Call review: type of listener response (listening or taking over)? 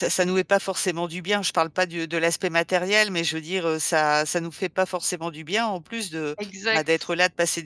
listening